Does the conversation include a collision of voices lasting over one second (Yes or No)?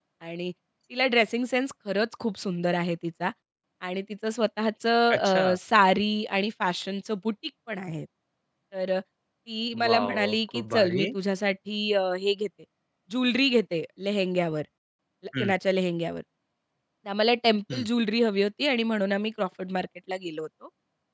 Yes